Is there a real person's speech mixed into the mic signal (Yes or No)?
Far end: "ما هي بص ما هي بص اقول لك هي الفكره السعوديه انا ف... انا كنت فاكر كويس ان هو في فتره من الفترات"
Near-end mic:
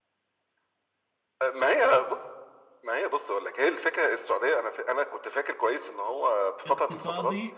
Yes